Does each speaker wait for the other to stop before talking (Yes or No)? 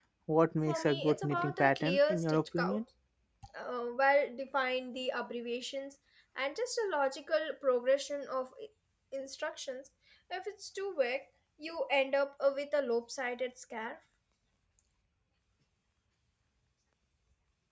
No